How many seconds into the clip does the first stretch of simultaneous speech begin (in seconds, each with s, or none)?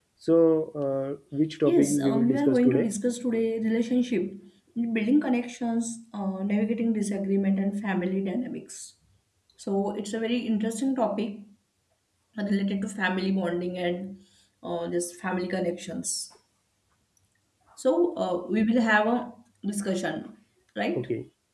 1.6 s